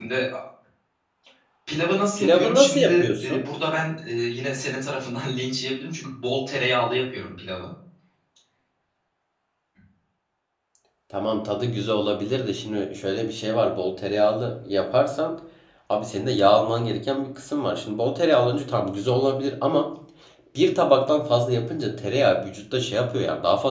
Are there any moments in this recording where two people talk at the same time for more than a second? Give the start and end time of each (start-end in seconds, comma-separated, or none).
2.2-3.4